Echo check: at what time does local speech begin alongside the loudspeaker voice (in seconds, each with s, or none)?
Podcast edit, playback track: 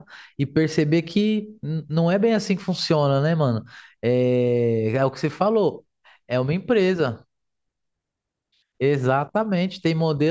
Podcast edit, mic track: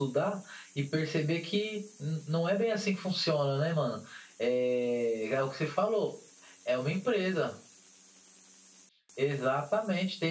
none